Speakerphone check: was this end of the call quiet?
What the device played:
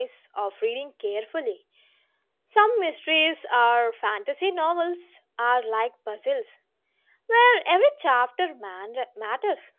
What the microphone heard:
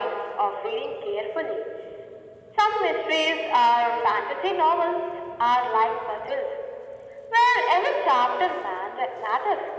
Yes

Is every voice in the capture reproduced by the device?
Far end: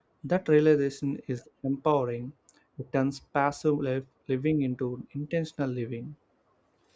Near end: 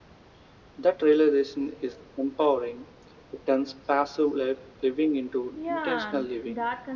No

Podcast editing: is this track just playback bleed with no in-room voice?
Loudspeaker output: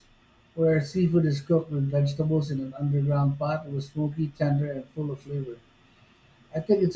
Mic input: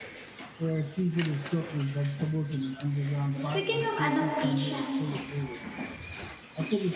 No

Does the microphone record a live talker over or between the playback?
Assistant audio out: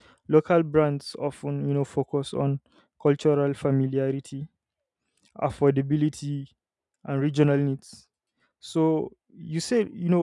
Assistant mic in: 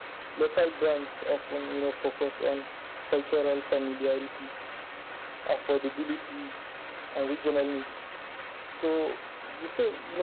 No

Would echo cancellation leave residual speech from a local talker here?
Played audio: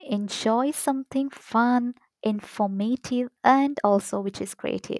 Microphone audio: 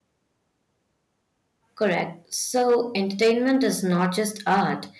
Yes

